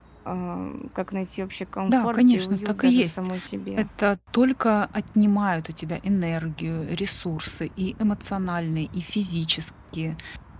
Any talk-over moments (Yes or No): Yes